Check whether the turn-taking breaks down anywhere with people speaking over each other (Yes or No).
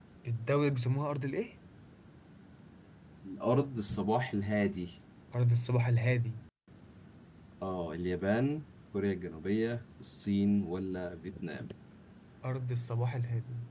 No